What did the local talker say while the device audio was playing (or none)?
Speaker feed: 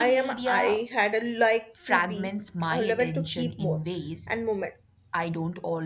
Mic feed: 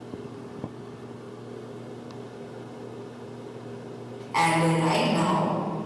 And uh, right now,